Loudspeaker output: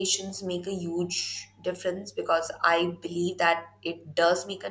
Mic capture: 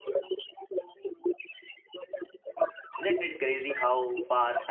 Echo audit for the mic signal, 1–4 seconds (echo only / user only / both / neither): both